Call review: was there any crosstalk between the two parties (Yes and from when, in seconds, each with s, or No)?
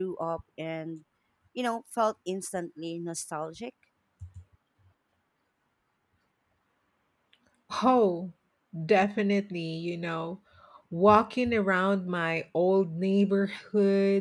No